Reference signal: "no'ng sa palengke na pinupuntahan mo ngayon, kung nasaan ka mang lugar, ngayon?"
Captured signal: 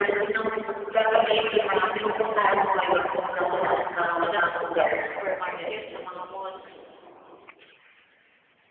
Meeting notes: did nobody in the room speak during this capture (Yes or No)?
No